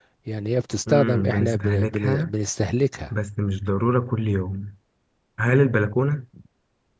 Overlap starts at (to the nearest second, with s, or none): 1 s